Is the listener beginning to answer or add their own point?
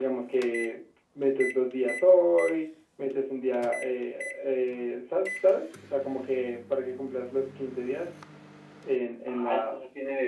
Yes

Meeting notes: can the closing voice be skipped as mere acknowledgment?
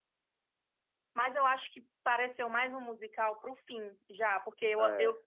Yes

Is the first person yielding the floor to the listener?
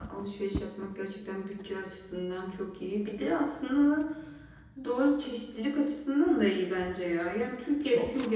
No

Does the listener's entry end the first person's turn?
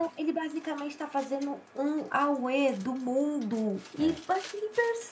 No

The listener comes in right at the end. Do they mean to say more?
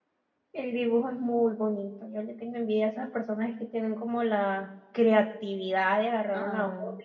No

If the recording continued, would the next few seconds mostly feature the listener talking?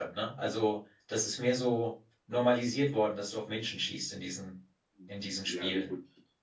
Yes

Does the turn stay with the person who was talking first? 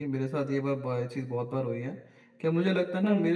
Yes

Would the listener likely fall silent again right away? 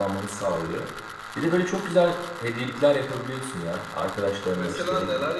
No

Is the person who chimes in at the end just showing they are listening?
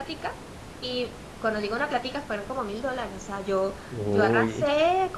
Yes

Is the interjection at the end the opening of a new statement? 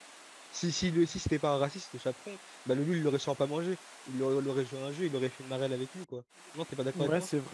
Yes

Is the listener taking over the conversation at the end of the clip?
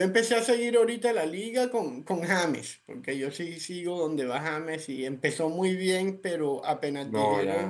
No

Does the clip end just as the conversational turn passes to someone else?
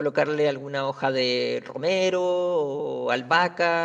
No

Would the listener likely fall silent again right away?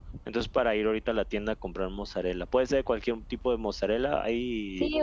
No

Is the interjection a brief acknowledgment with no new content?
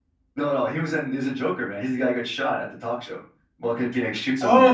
No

